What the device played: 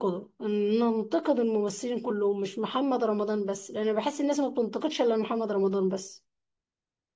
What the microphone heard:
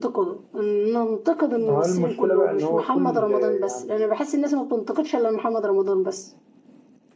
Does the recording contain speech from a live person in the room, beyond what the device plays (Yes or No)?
Yes